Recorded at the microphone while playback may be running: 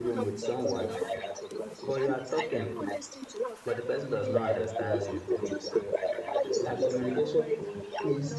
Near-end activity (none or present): present